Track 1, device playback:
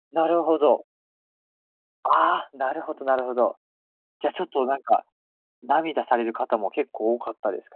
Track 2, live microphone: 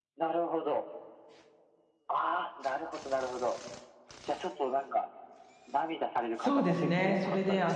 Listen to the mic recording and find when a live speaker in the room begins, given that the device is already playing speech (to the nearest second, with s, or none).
6 s